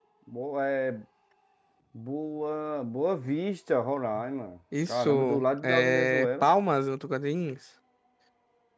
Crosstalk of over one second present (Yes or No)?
Yes